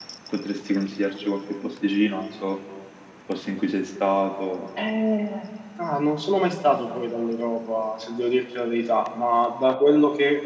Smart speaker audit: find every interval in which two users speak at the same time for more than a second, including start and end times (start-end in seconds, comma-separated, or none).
none